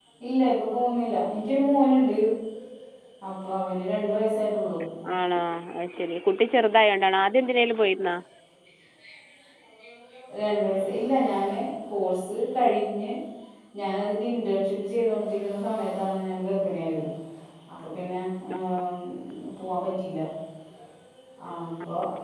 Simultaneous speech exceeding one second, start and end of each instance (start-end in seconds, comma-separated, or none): none